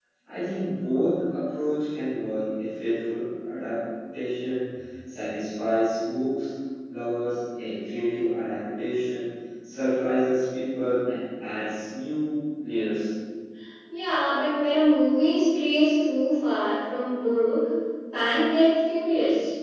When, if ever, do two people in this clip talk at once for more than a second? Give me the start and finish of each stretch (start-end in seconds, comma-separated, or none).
none